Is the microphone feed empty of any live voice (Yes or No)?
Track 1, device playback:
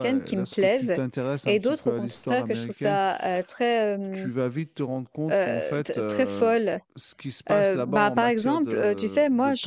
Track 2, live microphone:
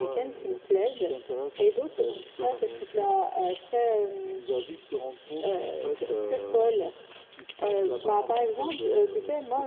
Yes